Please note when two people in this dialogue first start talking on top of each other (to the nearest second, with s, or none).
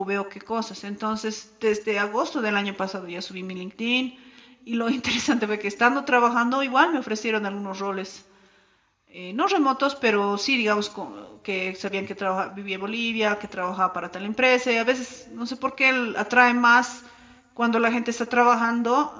none